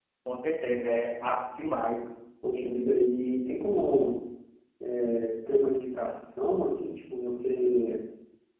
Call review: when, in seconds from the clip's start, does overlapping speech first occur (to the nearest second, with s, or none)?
none